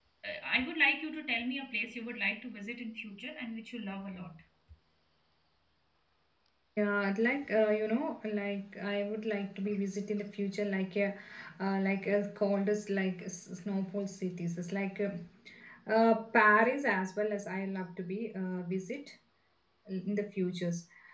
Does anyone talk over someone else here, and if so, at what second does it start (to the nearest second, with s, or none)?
none